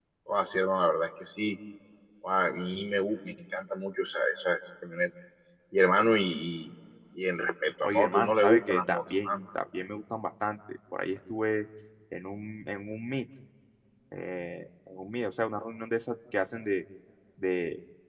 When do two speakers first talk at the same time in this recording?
7.8 s

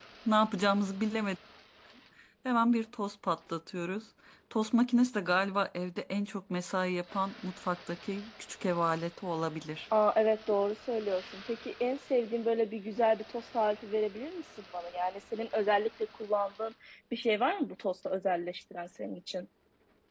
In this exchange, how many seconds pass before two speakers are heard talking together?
none

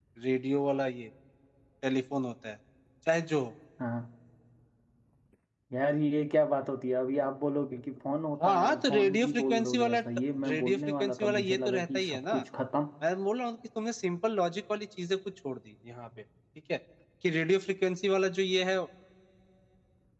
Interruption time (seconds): 8.4 s

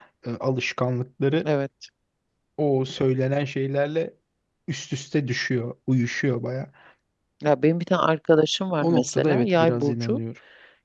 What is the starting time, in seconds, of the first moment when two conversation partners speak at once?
8.8 s

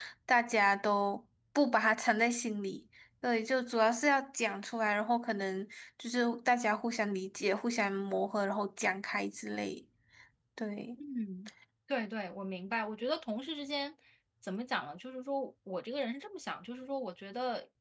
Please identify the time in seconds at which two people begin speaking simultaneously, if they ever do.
none

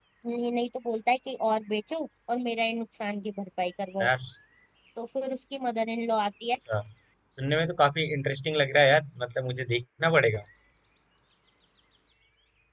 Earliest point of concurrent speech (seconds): none

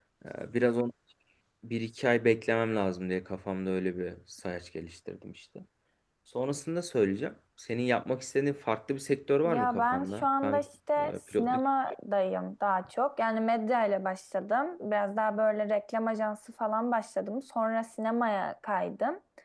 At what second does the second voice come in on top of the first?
9.4 s

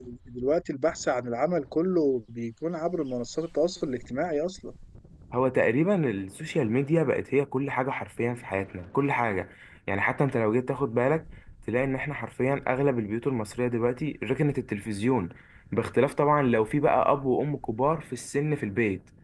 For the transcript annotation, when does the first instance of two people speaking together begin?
none

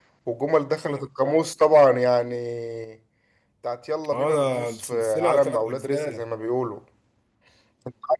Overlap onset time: 4.1 s

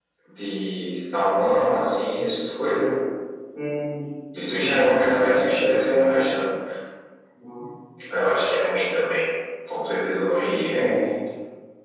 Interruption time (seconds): 4.5 s

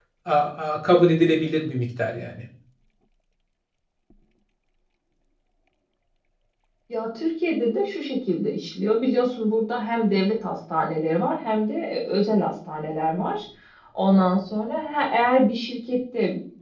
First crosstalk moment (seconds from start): none

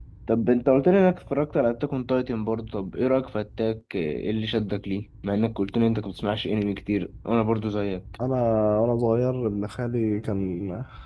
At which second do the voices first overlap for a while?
none

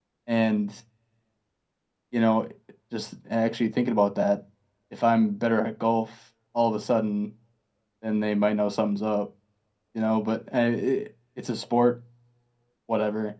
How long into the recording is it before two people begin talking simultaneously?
none

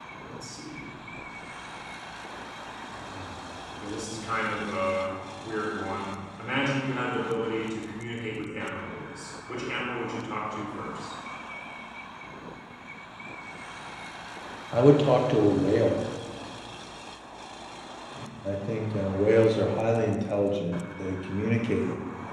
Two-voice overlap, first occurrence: none

